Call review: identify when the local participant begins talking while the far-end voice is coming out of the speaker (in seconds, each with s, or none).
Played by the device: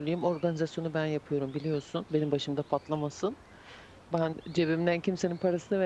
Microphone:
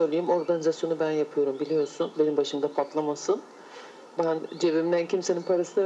none